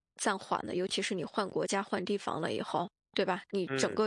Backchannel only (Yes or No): Yes